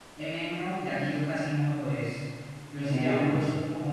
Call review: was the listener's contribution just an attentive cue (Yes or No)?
Yes